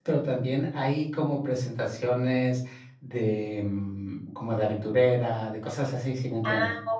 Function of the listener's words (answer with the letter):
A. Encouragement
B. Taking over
B